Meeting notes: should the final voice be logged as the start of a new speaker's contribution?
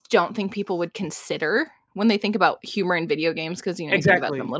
Yes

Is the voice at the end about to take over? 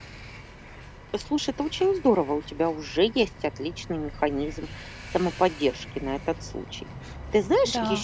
No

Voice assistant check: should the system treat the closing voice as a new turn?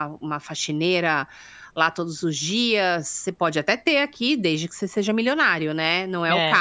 Yes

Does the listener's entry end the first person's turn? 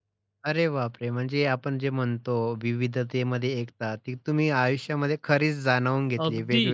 Yes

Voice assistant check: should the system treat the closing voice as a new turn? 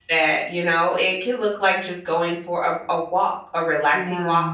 No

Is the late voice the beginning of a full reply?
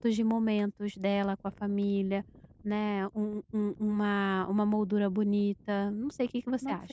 Yes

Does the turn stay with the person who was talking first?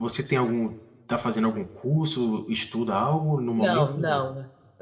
No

